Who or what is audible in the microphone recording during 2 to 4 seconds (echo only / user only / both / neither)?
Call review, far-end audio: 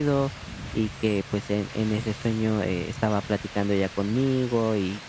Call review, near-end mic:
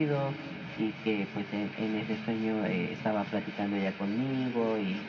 echo only